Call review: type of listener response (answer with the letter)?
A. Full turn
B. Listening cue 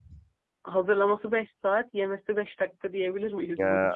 A